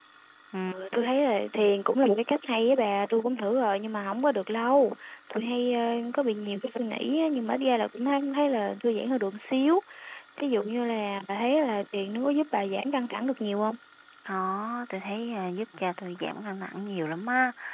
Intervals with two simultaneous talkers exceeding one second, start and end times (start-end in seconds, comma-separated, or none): none